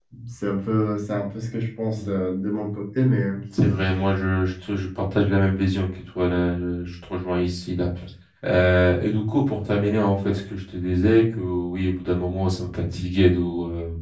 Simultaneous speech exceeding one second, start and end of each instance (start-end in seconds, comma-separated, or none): none